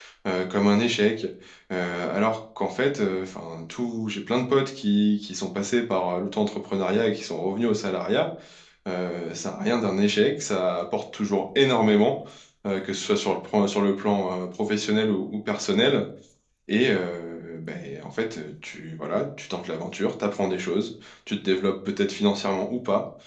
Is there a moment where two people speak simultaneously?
No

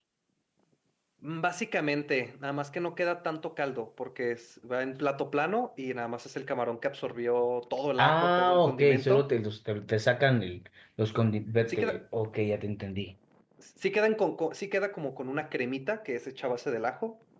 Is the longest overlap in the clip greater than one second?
Yes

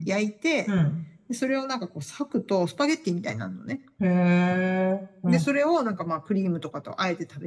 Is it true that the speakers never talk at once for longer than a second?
Yes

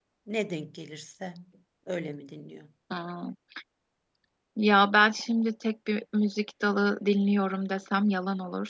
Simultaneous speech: No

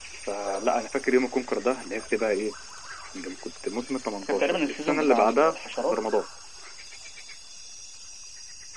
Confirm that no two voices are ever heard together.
No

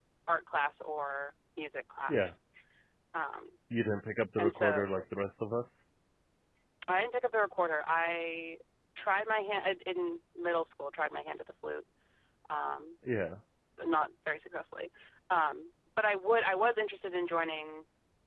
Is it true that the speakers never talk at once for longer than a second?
Yes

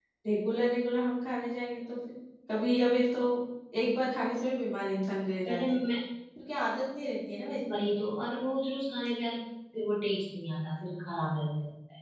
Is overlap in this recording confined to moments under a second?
Yes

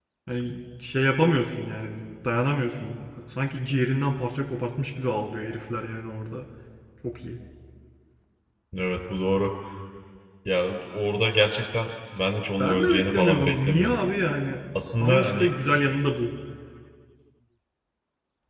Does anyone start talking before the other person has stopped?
Yes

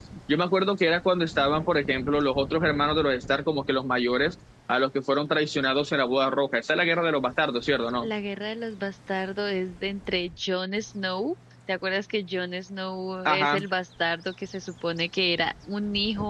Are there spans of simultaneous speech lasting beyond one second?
No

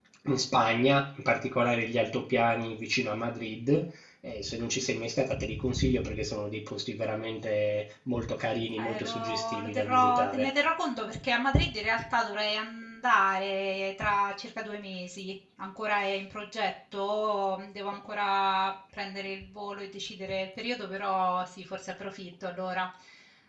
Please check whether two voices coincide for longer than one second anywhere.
Yes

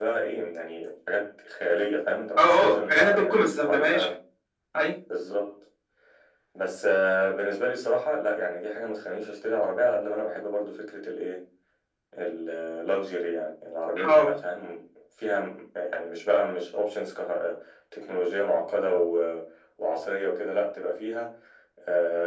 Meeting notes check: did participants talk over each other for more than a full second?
Yes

